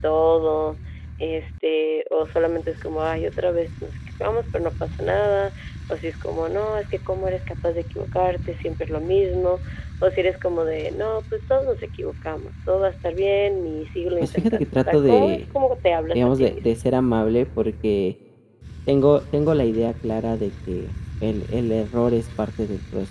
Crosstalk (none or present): present